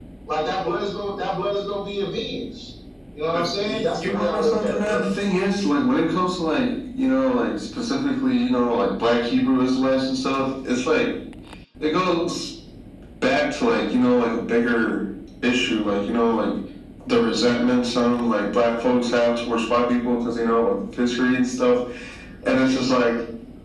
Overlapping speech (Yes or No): Yes